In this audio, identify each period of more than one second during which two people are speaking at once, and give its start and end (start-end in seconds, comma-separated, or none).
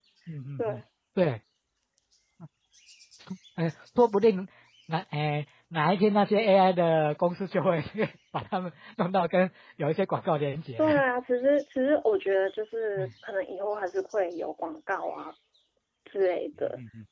none